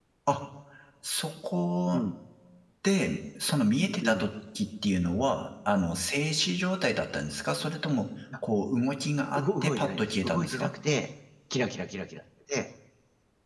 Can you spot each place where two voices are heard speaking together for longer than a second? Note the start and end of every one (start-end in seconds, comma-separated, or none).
9.4-10.7